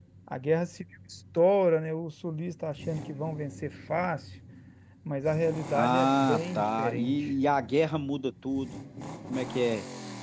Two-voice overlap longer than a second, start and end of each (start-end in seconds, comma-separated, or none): 5.7-7.3